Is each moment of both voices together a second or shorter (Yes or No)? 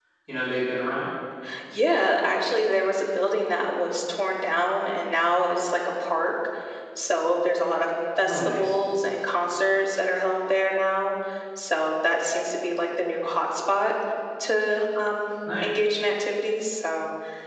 Yes